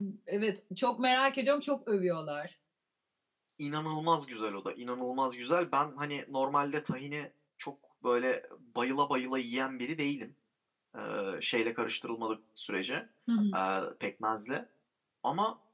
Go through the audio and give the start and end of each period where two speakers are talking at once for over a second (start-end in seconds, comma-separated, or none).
none